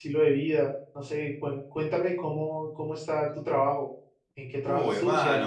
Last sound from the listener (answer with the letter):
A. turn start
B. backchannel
A